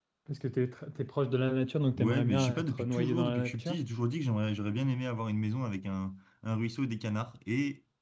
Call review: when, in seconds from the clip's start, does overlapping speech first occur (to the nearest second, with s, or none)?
2 s